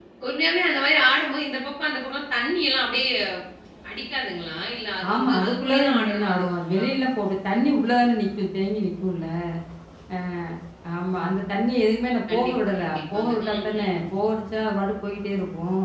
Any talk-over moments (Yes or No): Yes